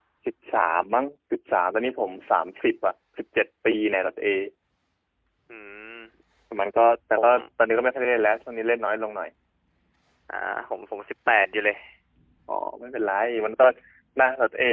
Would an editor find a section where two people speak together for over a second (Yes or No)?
No